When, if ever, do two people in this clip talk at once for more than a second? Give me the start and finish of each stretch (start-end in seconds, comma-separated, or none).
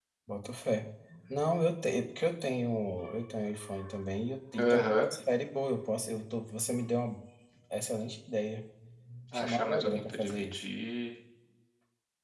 9.3-10.6